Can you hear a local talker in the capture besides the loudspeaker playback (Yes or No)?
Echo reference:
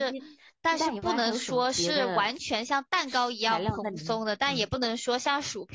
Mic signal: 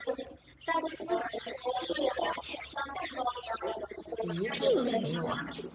Yes